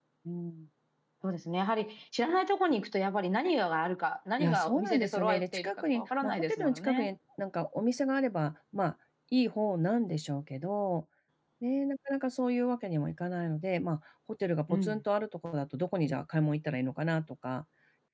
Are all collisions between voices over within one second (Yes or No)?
No